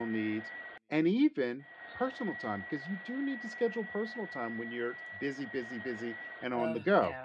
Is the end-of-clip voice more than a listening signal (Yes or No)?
Yes